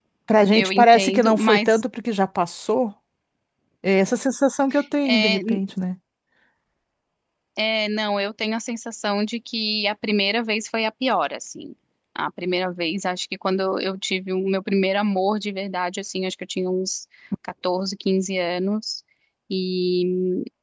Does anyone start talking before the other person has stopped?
Yes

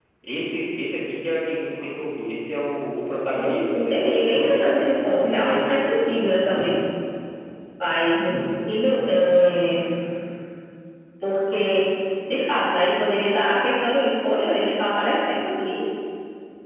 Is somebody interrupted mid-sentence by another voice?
Yes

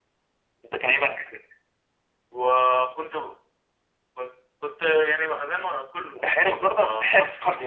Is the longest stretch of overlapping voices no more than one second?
No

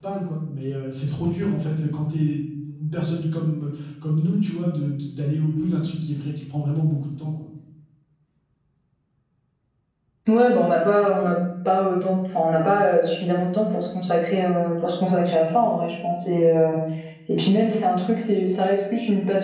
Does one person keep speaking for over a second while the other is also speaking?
No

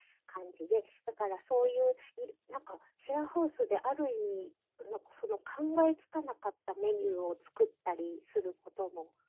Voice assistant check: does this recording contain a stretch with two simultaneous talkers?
No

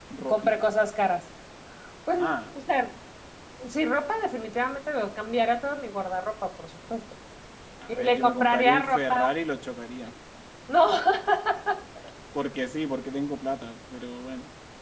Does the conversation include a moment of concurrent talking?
Yes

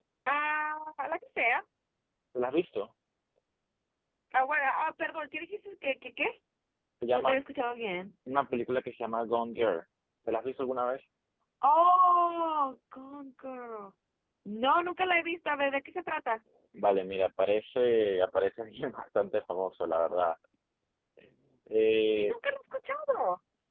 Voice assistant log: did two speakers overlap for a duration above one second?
No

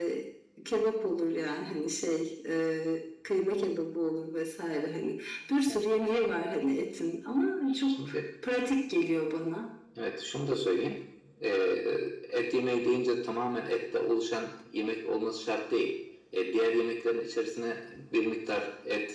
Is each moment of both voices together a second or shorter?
Yes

